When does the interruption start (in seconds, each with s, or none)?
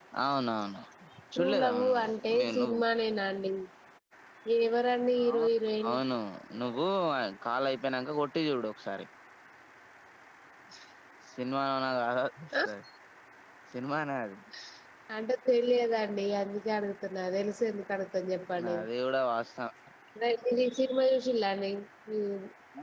1.4 s